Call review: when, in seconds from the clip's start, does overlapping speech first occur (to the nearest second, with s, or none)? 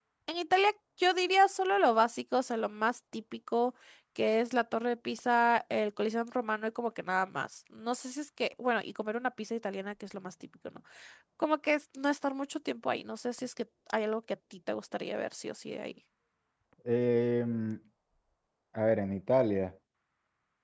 none